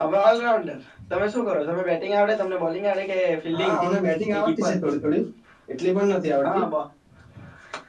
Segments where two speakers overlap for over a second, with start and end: none

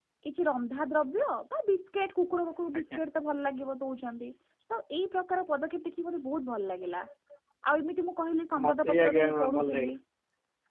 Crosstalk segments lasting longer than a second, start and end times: 8.6-9.9

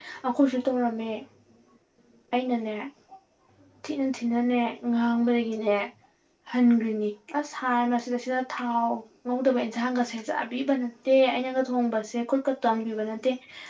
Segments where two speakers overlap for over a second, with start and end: none

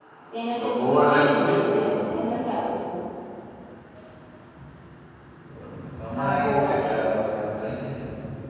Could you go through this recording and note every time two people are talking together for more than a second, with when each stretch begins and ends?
0.5-2.1, 6.1-7.4

